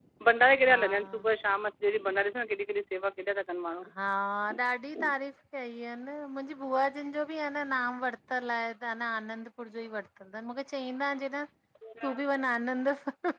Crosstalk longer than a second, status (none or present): none